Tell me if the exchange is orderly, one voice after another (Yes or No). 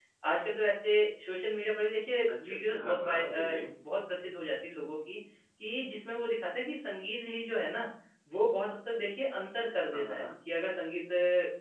No